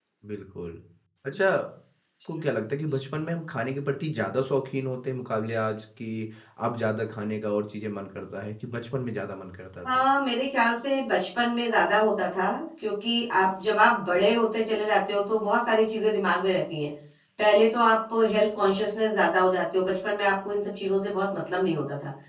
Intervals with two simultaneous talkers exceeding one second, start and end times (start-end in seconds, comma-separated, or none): none